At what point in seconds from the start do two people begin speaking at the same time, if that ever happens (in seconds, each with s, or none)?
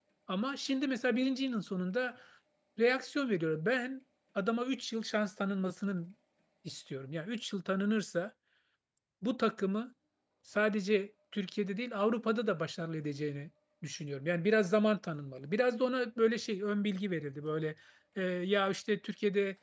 none